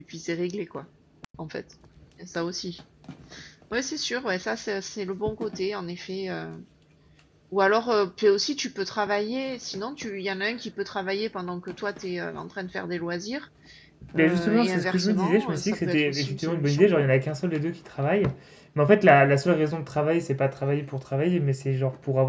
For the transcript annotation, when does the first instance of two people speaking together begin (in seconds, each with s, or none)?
14.2 s